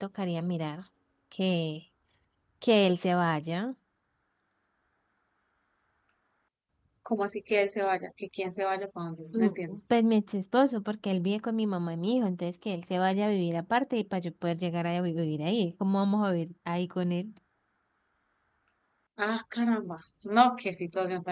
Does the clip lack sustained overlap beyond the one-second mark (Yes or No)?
Yes